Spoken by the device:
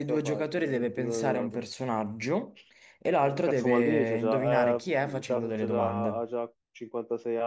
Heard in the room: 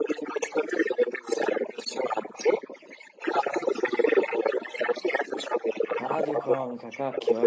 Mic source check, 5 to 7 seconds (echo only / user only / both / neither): both